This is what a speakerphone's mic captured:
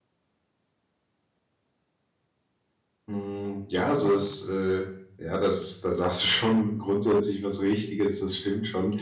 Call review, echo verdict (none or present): none